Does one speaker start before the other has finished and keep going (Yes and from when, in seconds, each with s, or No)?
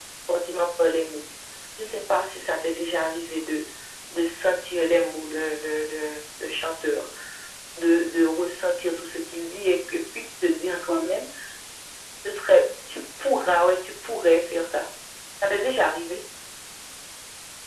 No